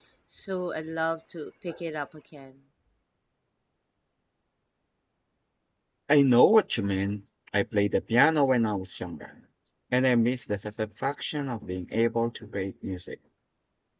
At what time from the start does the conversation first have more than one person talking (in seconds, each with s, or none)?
none